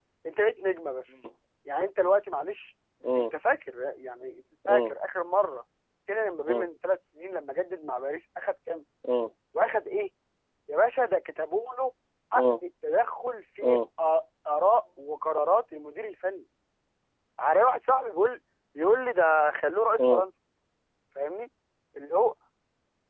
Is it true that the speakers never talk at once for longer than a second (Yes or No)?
Yes